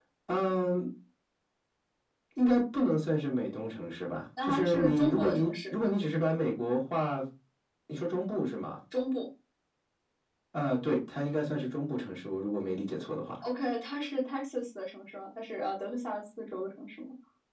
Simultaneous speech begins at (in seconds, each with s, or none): 4.4 s